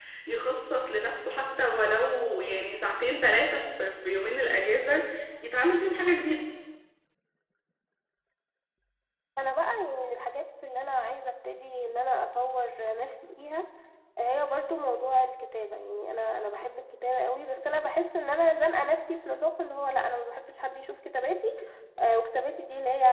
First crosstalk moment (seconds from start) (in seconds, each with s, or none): none